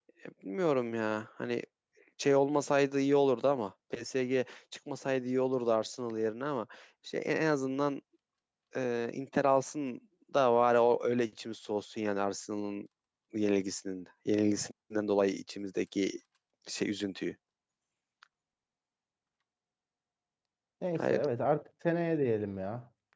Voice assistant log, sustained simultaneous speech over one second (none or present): none